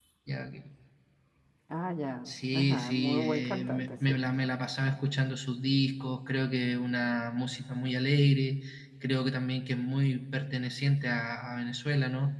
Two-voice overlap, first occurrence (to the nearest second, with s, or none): 2 s